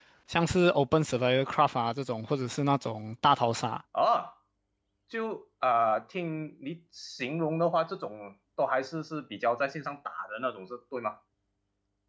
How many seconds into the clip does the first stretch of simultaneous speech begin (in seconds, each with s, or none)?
none